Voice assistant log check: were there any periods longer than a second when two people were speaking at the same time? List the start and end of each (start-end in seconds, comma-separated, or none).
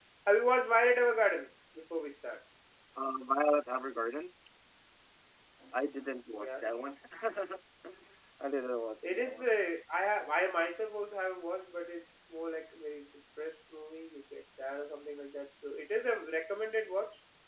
none